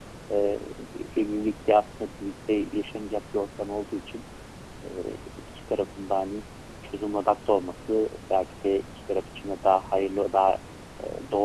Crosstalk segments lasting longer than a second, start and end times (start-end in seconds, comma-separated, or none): none